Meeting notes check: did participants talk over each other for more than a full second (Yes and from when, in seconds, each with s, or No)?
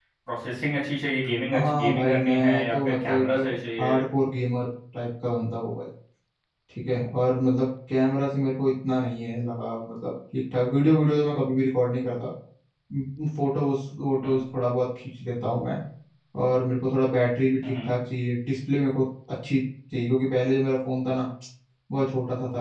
Yes, from 1.5 s